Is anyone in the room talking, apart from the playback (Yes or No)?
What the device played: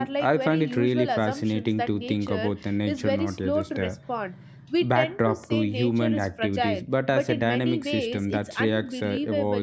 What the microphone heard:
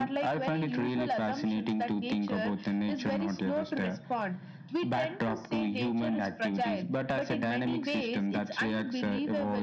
No